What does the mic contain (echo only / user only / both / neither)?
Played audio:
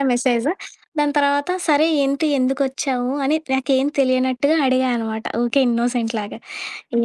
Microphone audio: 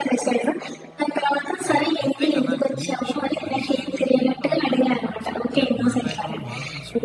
both